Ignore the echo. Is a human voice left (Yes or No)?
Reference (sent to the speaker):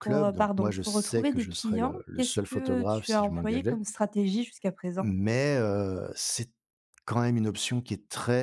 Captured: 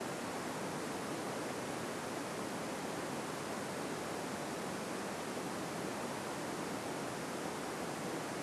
No